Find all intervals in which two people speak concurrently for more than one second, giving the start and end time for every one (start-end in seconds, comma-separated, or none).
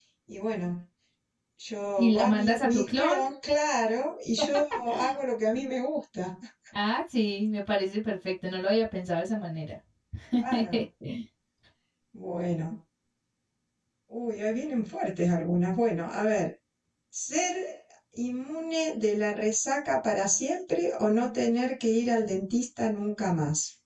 2.0-3.2